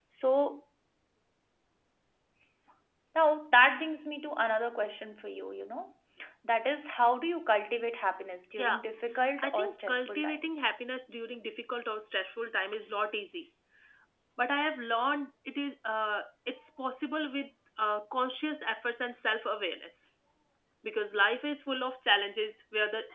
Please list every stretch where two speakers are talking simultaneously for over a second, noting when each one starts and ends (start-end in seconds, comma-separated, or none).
9.4-10.6